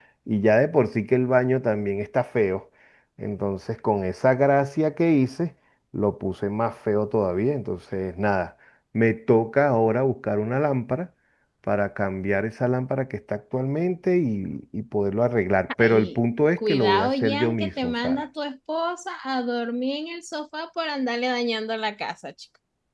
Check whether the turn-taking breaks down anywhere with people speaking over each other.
Yes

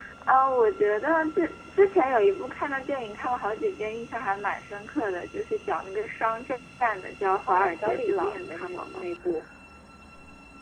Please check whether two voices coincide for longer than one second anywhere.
Yes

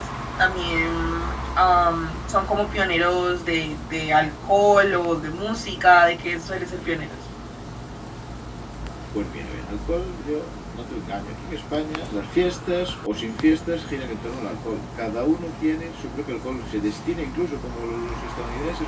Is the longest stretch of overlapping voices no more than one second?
Yes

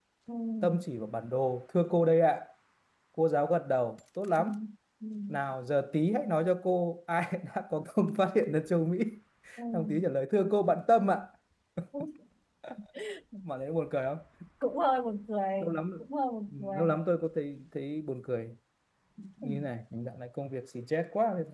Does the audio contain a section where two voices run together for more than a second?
No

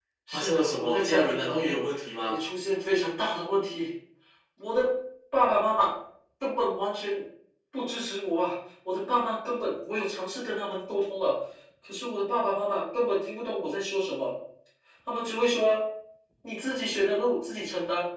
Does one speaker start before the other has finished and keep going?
Yes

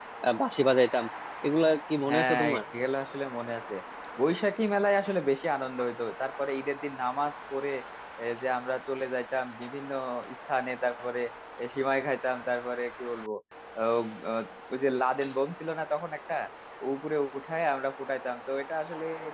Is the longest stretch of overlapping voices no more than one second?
Yes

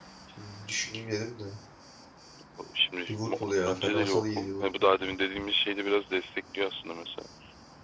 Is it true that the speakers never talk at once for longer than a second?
No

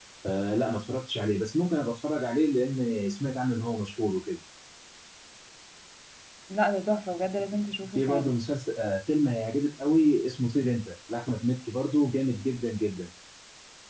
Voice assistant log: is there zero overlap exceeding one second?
Yes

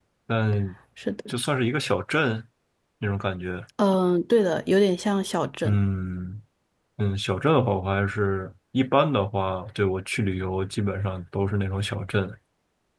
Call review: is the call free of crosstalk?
Yes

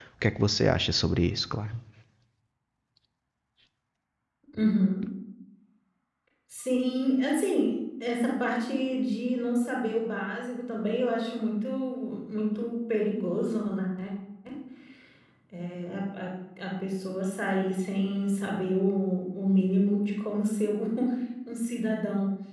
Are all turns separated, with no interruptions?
Yes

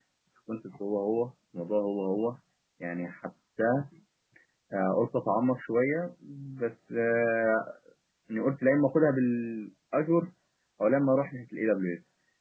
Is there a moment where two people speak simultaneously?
No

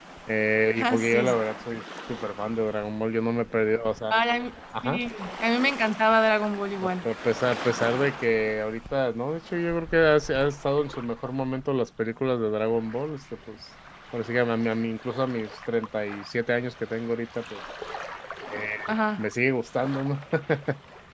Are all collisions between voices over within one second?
Yes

